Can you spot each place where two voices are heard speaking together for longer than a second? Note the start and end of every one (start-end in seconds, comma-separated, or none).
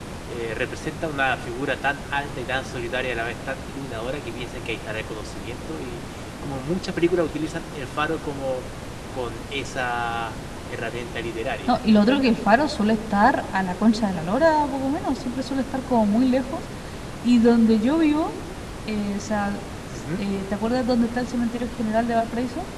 none